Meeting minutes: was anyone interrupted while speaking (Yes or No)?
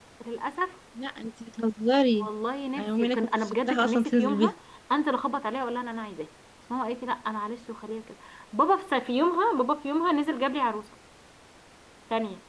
Yes